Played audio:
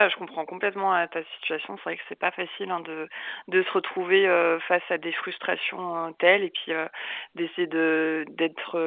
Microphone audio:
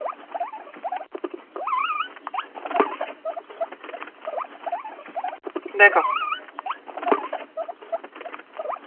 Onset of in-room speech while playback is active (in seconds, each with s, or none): 5.7 s